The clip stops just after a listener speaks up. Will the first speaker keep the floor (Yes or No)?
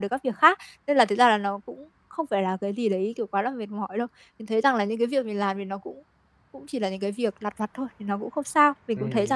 No